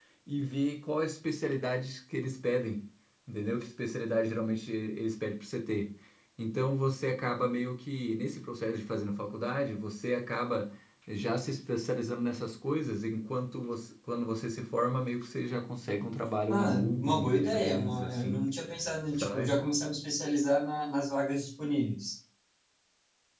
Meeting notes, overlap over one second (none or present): present